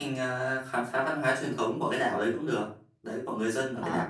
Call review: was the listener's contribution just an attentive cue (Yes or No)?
No